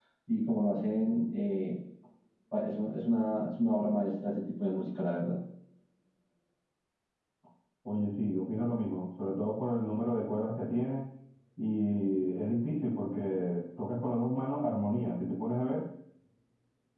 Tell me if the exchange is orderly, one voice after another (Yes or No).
Yes